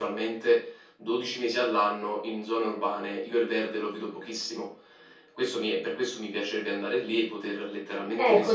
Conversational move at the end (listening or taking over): taking over